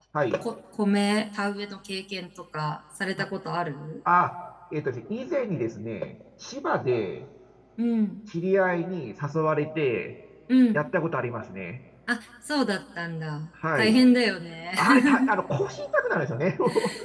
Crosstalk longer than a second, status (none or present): none